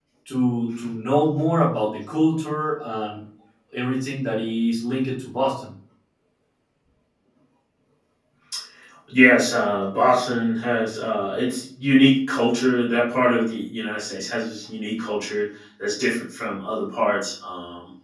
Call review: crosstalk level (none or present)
none